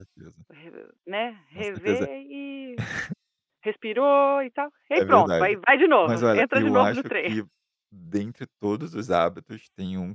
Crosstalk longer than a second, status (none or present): present